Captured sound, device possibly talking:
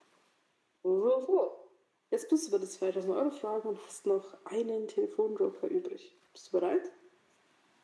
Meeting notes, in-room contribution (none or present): none